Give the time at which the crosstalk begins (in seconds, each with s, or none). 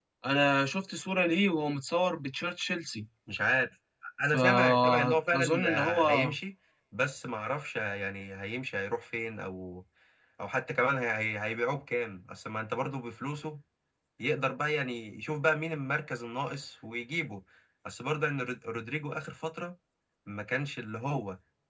4.2 s